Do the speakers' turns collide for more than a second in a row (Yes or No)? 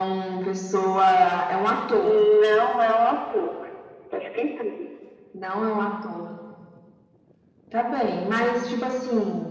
No